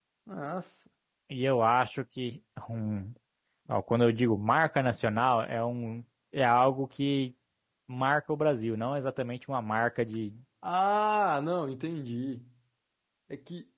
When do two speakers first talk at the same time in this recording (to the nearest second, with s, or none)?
none